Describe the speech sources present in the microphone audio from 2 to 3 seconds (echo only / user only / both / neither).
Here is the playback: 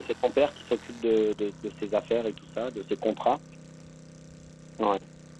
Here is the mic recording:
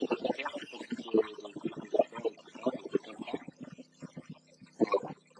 echo only